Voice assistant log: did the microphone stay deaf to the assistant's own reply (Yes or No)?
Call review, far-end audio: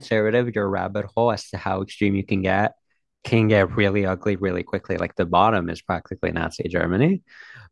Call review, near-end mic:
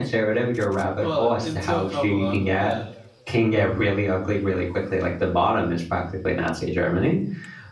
No